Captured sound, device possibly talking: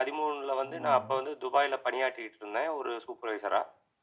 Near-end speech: present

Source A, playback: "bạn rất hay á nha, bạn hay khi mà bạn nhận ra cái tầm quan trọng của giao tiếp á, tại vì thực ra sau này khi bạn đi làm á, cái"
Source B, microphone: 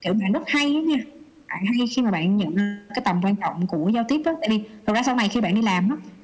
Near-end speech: none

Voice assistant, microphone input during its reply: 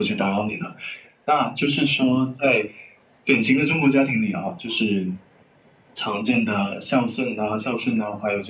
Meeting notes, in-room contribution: none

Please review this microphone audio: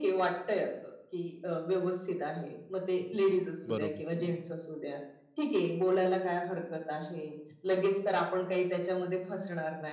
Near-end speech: present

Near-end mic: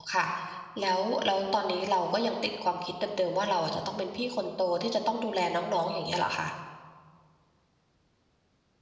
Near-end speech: present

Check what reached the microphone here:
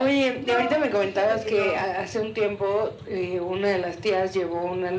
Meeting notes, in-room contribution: present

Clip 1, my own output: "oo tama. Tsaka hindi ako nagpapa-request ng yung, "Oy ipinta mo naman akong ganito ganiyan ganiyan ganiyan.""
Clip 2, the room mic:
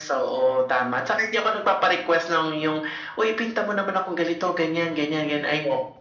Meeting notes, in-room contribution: none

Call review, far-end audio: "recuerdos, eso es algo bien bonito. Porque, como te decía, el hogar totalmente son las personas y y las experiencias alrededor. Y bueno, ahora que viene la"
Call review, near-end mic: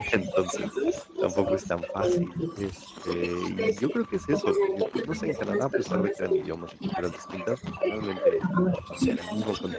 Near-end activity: present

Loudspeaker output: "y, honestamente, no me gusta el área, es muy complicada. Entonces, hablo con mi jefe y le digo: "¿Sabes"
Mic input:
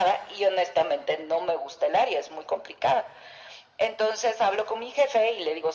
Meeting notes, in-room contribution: none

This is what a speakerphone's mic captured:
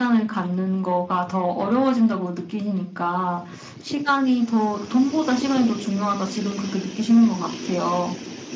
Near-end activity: none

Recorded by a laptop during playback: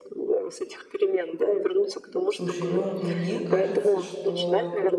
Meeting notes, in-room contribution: present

